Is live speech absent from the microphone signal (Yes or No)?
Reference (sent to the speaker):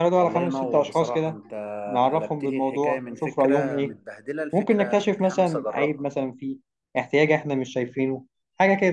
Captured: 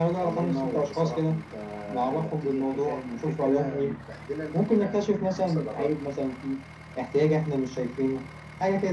Yes